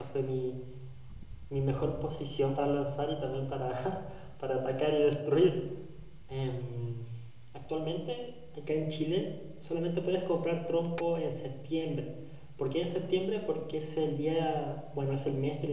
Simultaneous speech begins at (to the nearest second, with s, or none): none